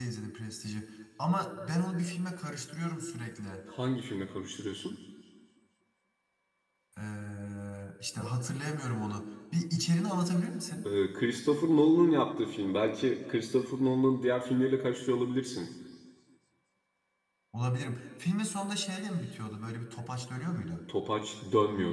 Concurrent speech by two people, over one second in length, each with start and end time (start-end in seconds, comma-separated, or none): none